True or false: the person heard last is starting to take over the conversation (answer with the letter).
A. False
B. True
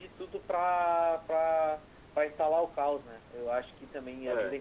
A